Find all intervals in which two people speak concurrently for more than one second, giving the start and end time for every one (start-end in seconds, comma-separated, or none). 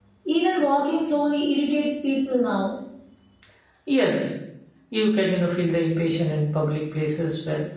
none